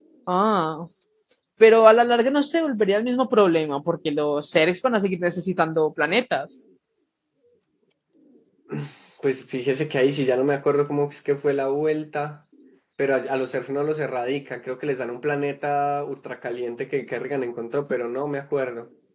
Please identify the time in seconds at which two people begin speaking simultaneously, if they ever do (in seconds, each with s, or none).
none